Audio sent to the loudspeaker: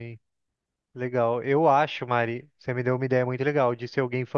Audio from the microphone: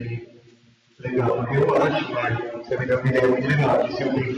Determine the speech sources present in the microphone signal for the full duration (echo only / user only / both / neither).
echo only